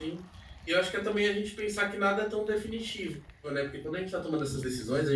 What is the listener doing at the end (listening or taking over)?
listening